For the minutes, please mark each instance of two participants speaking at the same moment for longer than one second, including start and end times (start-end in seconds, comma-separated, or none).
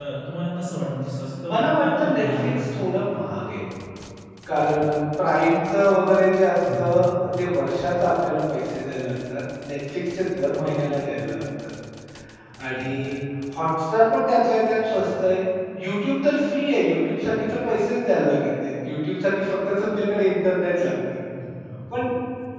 1.5-2.8